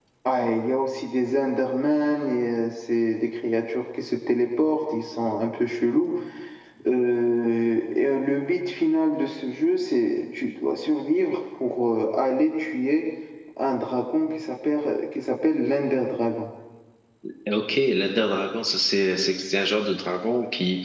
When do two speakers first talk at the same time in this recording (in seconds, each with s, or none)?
none